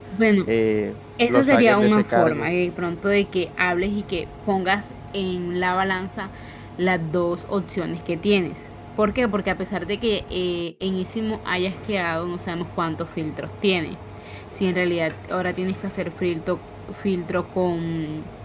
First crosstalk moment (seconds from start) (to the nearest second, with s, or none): 1 s